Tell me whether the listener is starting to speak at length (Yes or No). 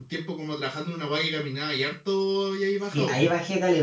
Yes